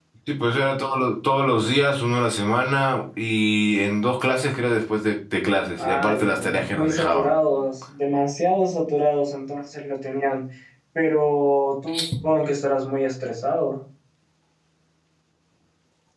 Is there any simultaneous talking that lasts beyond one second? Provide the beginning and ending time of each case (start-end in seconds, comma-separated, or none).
5.8-7.3